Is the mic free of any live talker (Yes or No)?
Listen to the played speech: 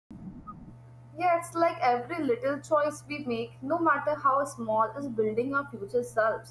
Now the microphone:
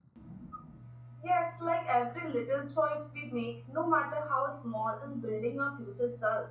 Yes